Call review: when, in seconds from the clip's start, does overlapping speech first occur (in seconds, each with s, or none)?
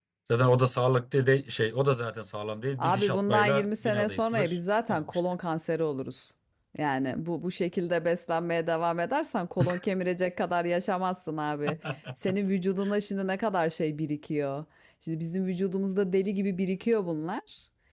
2.8 s